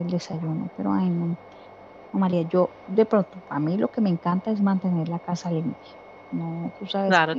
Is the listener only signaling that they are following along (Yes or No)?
No